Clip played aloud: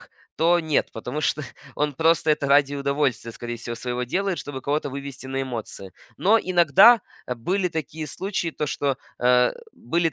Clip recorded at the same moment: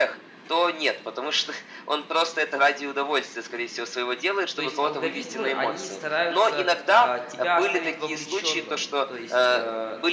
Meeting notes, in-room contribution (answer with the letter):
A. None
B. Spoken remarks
B